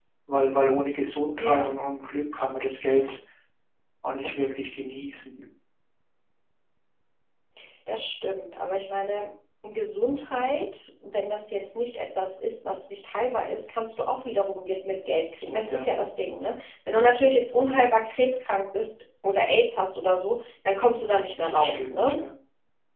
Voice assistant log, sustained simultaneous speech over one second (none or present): present